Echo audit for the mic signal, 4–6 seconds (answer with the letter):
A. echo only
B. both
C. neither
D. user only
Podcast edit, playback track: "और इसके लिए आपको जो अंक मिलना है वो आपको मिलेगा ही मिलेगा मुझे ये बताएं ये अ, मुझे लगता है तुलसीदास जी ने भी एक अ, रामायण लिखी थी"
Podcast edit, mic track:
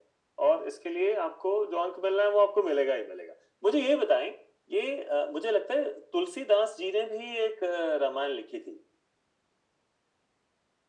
A